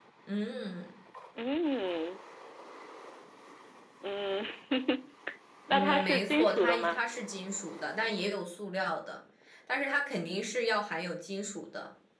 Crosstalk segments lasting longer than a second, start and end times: 5.7-7.0

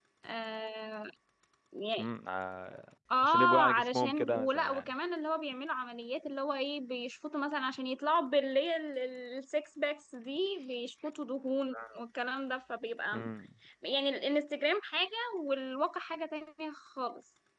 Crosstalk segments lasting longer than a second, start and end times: 3.2-4.8

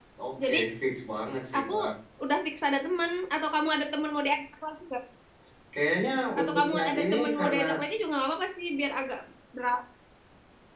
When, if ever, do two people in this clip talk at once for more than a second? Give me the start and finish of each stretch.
6.4-7.6

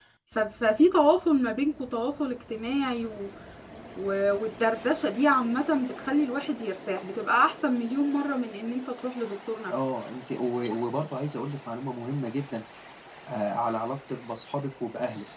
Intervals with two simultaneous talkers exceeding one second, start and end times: none

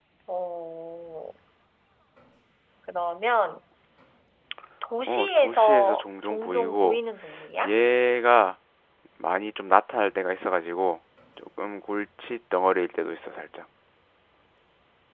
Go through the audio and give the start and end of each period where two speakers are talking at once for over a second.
5.1-7.0

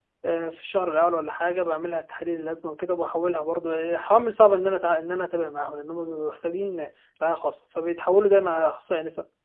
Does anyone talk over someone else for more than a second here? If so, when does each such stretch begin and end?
none

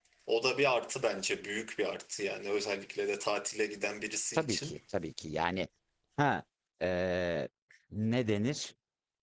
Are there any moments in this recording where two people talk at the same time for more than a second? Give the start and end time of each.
none

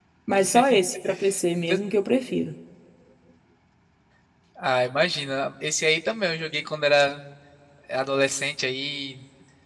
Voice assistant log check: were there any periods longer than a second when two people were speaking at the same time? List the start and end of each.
none

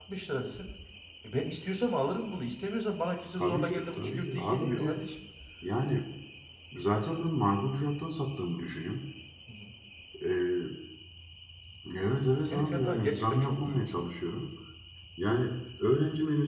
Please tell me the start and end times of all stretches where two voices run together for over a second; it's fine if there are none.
3.4-5.0, 12.5-13.9

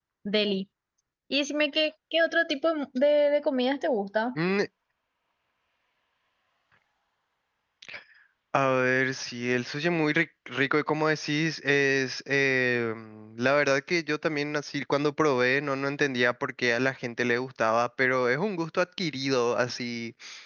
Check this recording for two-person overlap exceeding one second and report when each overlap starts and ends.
none

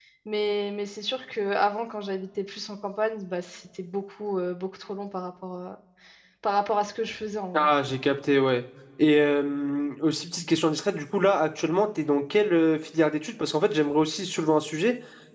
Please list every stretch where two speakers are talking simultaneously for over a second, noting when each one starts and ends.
none

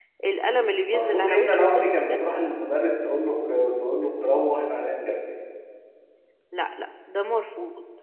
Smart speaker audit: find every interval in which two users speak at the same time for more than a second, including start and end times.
0.9-2.2

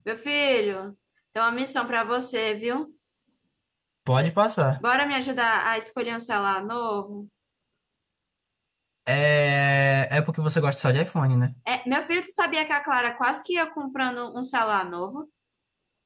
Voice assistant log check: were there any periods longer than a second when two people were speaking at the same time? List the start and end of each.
none

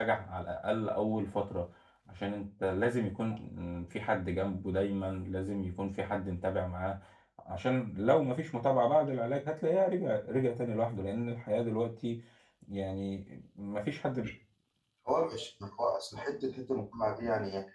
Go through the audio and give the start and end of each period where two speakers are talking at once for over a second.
none

